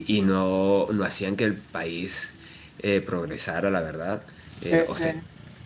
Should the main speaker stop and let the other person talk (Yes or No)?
No